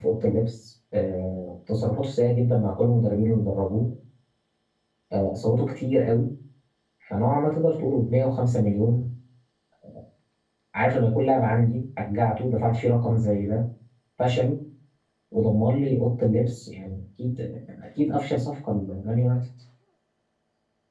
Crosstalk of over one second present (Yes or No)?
No